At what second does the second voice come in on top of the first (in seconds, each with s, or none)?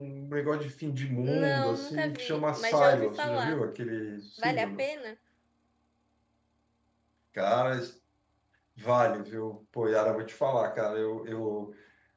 1.2 s